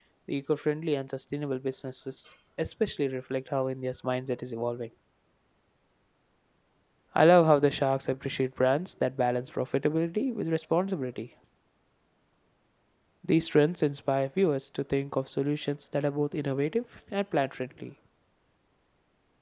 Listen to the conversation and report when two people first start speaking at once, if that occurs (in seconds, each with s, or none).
none